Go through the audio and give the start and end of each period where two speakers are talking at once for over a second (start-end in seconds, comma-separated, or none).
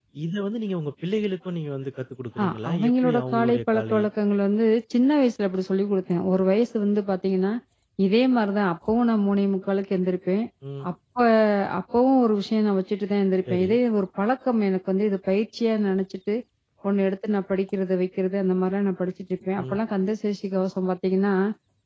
2.4-4.0